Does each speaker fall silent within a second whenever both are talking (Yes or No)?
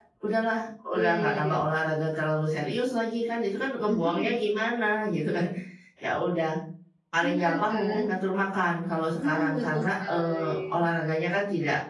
No